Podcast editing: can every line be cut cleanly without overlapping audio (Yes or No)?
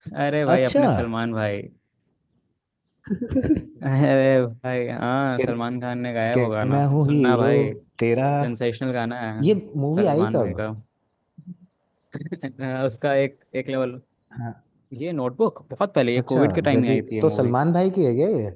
No